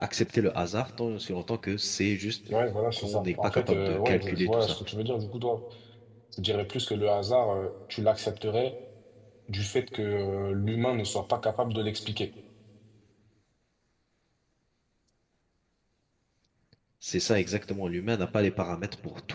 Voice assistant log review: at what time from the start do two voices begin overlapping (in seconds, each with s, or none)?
3.0 s